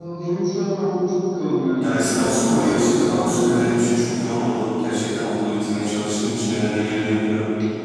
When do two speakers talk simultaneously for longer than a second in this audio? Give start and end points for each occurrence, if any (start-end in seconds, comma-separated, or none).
1.8-3.6